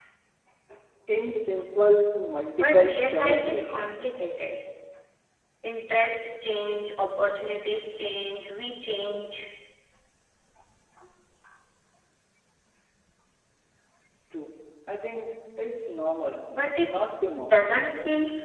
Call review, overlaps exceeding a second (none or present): present